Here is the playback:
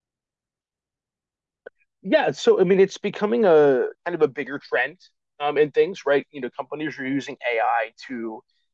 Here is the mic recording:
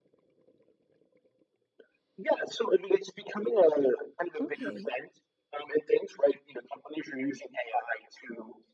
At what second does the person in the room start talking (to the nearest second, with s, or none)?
4 s